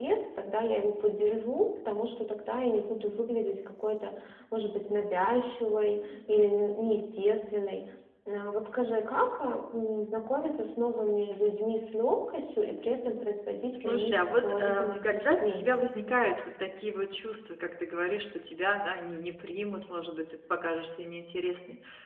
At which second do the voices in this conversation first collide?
13.7 s

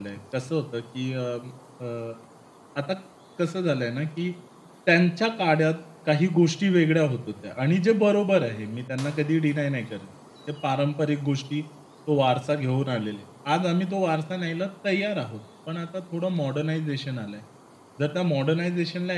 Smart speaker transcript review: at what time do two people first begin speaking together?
none

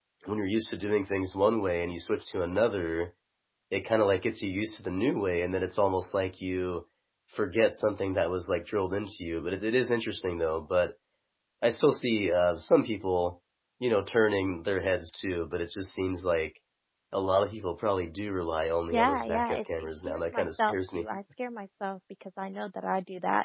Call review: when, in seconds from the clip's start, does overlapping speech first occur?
18.9 s

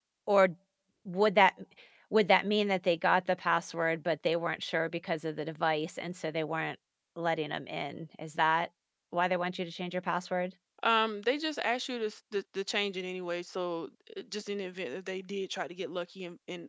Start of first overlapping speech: none

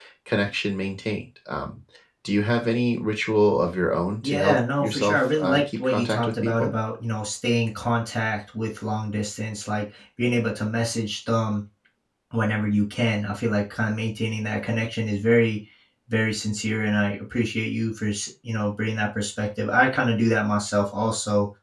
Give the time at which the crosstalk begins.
4.2 s

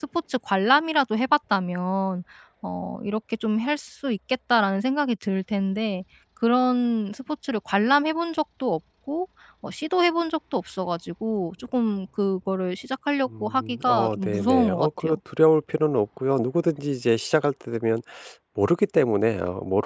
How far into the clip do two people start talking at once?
13.3 s

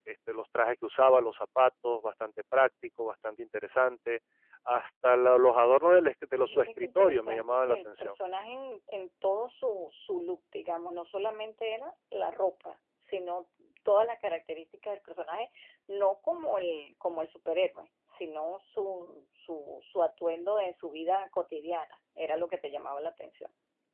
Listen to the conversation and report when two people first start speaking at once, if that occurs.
6.4 s

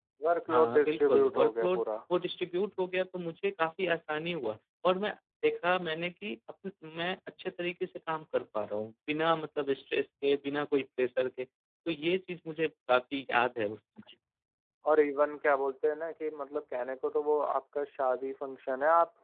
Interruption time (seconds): 0.5 s

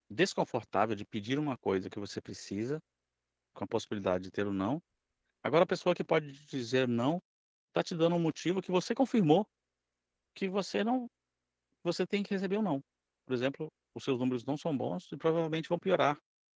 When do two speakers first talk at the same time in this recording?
none

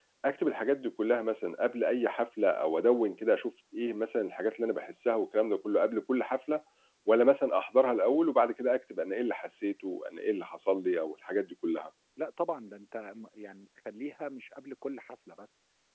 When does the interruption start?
none

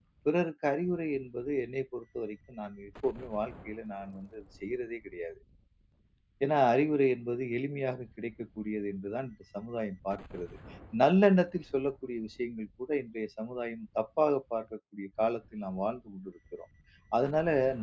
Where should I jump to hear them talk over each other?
none

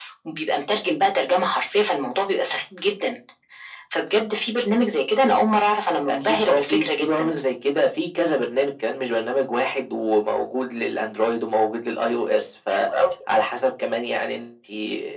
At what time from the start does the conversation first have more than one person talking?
6.1 s

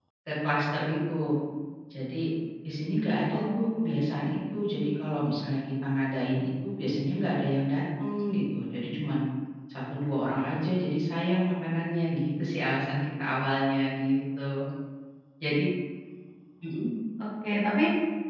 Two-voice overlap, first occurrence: 3.3 s

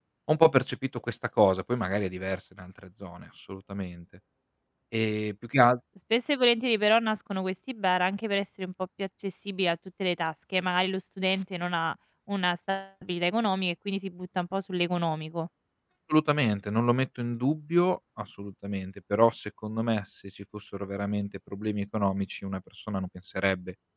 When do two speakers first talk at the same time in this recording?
none

